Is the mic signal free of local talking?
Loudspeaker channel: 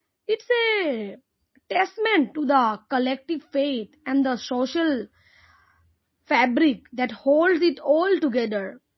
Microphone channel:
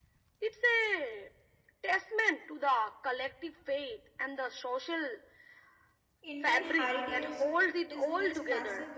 No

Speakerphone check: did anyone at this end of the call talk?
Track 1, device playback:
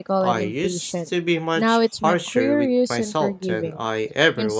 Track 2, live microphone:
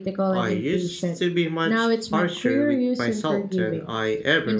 No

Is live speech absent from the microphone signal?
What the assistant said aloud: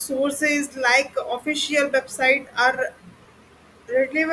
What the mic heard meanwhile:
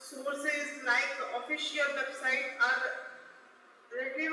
Yes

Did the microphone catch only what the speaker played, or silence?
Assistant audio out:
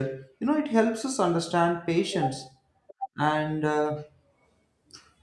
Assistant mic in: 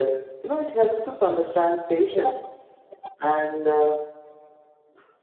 Yes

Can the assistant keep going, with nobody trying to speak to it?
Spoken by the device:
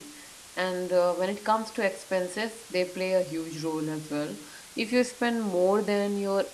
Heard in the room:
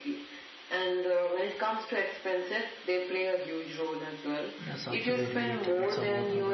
No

